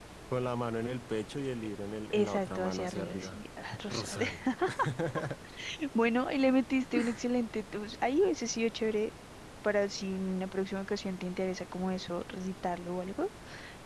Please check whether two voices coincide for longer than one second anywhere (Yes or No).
Yes